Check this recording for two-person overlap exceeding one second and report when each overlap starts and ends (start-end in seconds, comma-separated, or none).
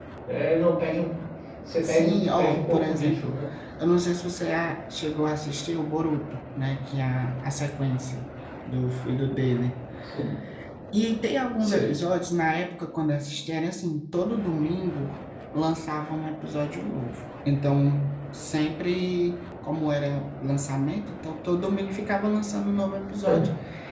1.8-3.4